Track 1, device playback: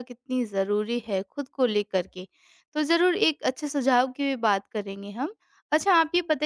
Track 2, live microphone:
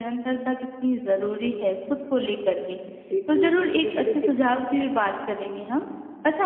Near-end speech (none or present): present